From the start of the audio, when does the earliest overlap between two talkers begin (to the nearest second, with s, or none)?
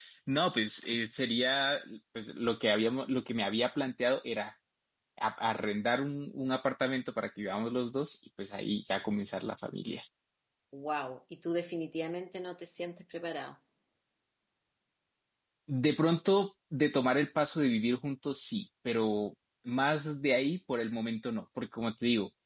none